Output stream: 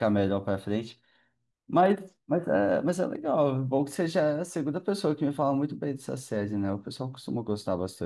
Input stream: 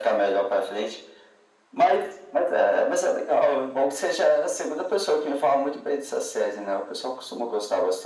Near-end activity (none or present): none